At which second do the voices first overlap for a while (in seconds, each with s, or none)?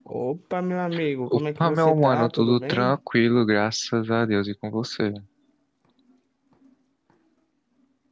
1.3 s